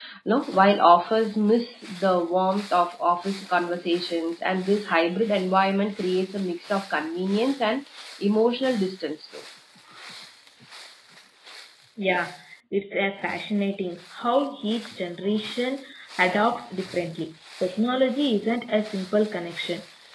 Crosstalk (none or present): none